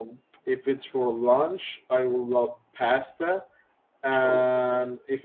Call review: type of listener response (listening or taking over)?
listening